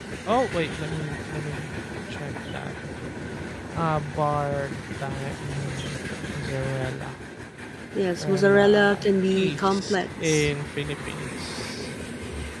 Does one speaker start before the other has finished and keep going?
Yes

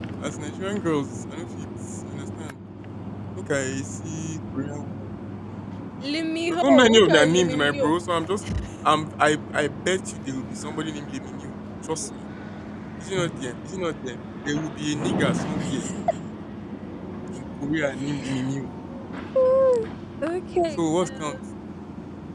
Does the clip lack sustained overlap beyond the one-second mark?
No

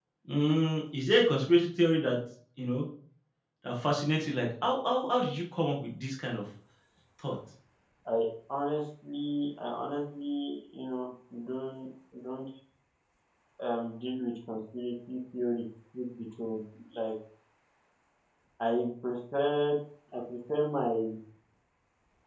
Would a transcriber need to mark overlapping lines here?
No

